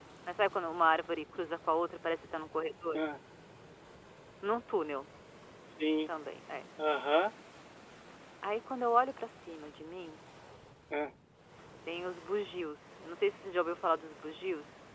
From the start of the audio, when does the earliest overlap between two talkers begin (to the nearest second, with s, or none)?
none